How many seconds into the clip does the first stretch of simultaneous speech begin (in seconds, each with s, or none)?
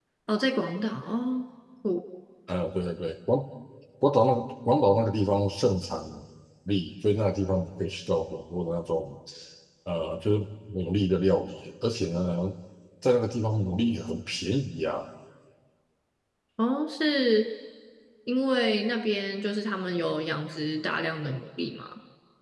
none